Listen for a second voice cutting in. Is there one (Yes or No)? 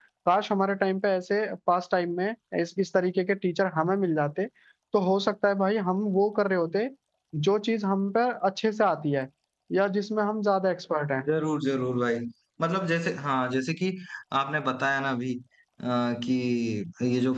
No